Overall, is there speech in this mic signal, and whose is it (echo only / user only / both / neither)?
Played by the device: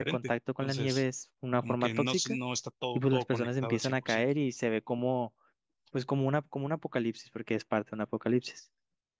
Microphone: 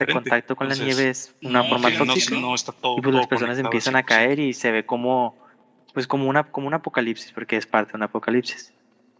both